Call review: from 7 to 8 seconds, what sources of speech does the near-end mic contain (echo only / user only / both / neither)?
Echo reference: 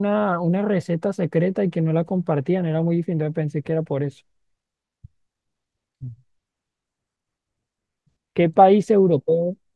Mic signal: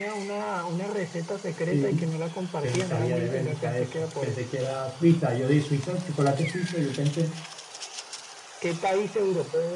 user only